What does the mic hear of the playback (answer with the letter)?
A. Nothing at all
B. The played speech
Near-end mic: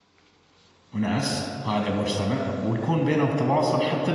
A